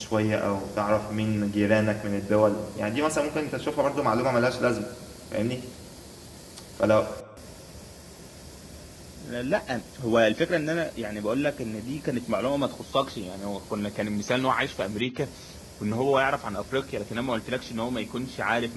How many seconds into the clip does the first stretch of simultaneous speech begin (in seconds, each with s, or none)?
none